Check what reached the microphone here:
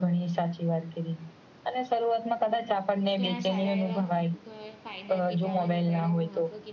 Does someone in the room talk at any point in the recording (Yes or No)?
Yes